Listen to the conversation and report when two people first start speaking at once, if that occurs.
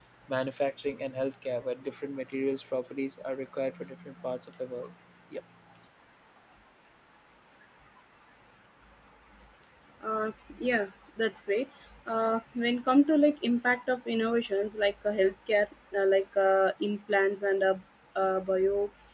none

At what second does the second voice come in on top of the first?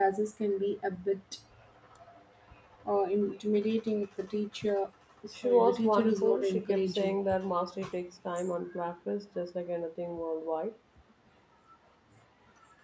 5.3 s

